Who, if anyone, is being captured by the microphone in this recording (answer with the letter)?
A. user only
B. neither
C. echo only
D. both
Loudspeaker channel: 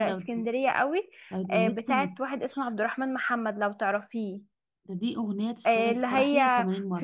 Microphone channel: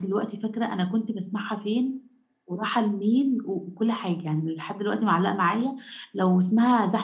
A